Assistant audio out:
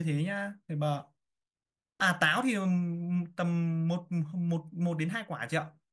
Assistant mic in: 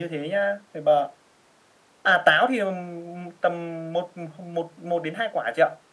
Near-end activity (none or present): none